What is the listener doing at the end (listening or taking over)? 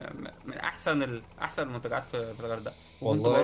listening